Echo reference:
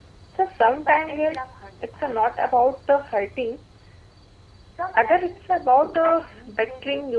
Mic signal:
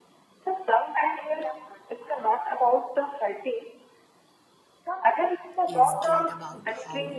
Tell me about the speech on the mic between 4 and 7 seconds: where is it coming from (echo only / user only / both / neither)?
both